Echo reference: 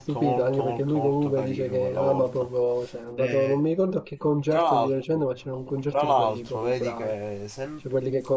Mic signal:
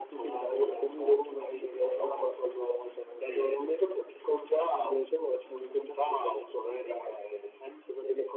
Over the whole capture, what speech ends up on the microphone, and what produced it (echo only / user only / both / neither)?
echo only